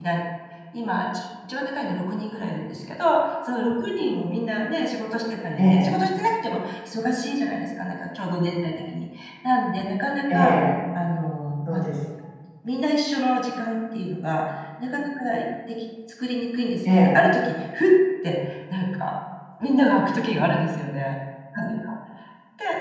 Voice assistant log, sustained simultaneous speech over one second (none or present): none